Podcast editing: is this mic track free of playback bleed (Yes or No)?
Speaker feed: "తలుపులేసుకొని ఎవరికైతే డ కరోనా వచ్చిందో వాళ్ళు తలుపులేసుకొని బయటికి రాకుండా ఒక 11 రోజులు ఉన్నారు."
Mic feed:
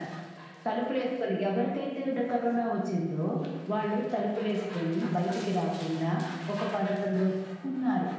No